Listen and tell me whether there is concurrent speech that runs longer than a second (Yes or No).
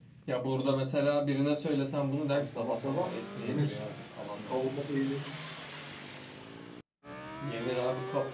Yes